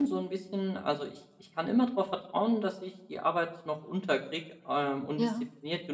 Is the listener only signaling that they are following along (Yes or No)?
Yes